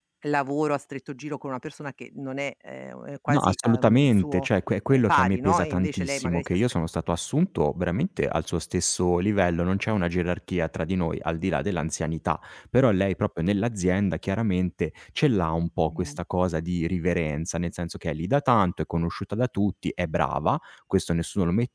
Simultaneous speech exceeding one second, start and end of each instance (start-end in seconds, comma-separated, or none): 3.3-4.5, 4.9-6.6